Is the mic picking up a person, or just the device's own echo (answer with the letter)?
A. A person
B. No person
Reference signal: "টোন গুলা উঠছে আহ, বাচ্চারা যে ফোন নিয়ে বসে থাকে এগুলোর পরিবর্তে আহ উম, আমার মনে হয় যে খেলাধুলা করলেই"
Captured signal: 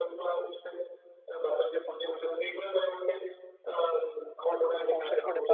A